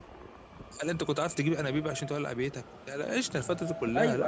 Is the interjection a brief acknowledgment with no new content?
No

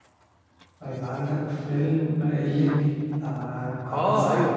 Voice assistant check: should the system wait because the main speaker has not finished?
No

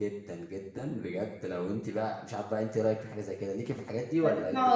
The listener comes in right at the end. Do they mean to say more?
Yes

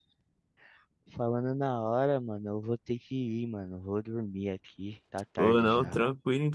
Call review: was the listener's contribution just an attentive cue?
No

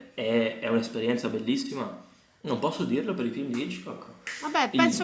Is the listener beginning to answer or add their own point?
Yes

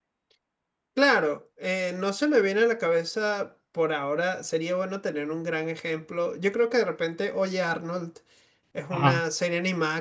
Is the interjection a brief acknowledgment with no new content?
Yes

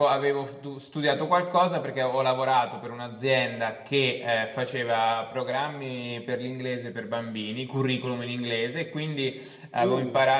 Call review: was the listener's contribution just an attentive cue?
Yes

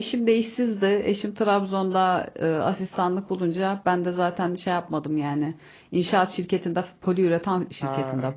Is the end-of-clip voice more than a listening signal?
Yes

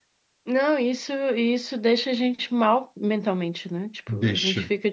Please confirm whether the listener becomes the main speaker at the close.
No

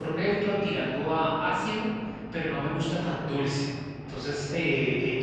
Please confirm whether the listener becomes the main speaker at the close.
No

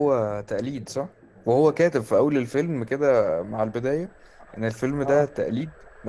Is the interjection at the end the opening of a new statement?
No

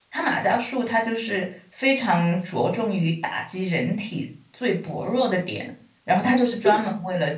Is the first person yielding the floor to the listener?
No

